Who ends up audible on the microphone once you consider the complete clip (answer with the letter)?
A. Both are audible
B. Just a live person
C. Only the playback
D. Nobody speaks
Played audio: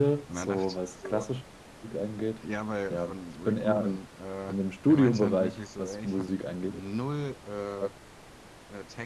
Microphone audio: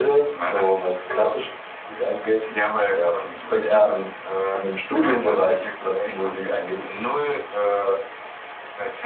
C